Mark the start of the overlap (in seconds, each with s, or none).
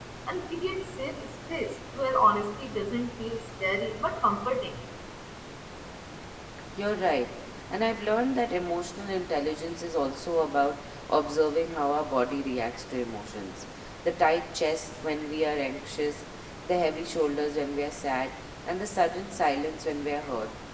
none